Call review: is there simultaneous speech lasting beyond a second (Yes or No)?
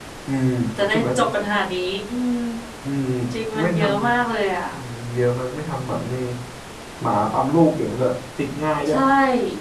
No